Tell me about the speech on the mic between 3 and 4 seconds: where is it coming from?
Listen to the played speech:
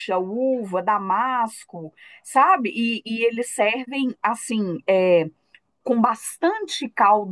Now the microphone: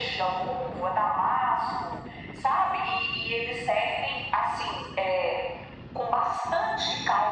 echo only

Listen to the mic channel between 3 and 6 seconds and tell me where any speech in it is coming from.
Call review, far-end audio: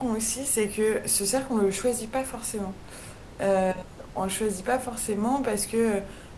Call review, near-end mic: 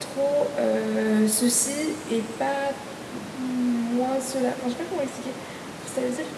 user only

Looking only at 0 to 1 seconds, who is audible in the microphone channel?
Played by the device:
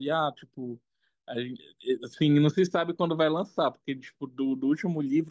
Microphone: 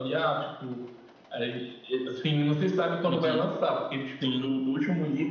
echo only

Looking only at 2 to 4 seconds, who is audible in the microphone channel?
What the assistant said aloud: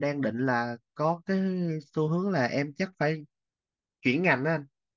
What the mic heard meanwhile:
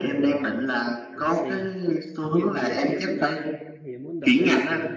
both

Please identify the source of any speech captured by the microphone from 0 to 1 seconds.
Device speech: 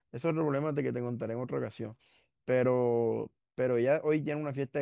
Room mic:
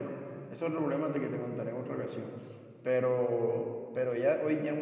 echo only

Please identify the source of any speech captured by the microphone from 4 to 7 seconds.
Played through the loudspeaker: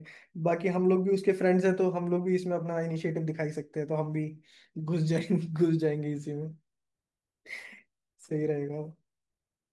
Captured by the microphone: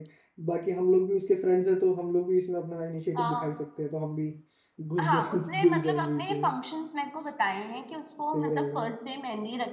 both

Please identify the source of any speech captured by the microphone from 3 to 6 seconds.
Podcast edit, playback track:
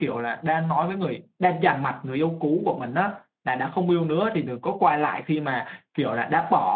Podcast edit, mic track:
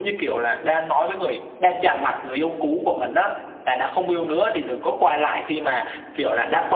echo only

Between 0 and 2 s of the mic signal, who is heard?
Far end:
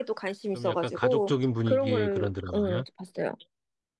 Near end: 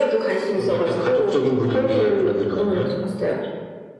echo only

